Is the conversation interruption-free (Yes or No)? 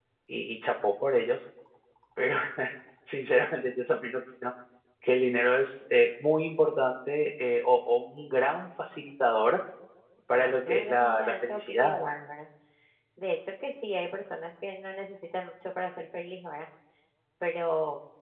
No